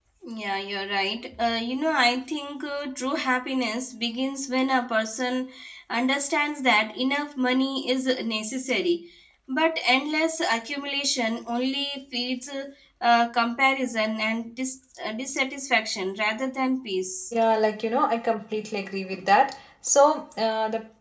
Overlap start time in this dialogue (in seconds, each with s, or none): none